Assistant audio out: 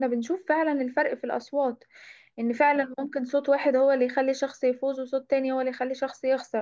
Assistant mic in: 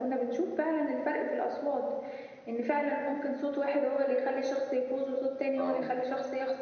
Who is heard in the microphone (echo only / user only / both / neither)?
both